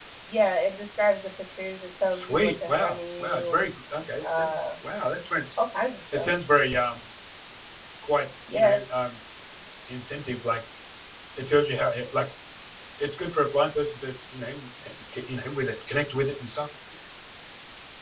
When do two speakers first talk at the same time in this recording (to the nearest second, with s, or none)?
2 s